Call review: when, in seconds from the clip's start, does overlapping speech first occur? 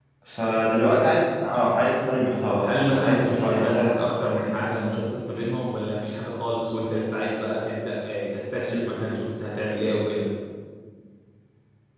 2.6 s

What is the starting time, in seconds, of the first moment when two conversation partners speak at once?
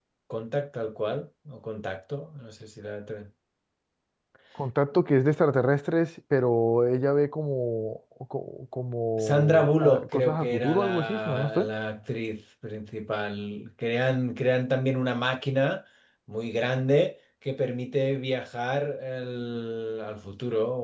9.2 s

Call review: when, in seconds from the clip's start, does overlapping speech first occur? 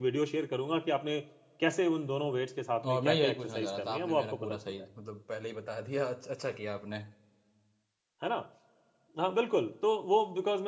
2.8 s

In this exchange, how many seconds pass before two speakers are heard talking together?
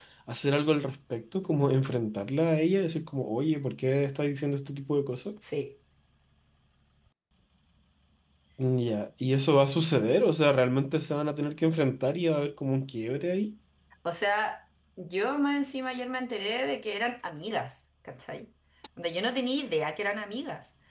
none

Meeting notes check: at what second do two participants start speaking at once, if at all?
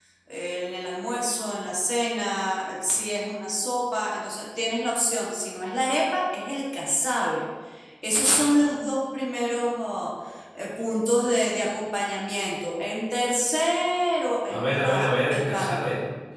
14.5 s

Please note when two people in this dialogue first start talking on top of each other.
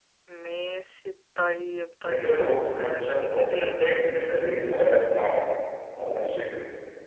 2.1 s

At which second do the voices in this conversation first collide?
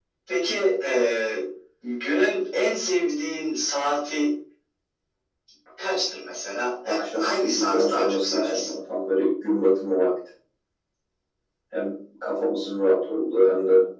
6.9 s

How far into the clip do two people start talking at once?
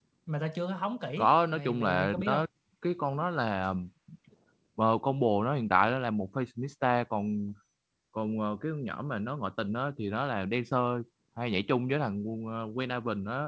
1.2 s

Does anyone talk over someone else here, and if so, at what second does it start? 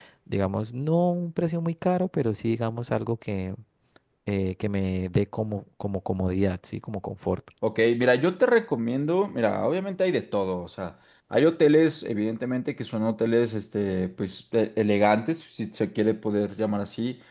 none

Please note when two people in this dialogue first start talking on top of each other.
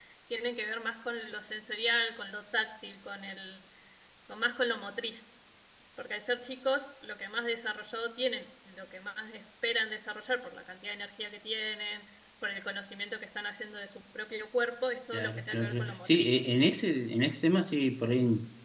15.1 s

